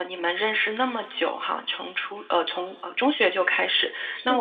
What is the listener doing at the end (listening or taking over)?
listening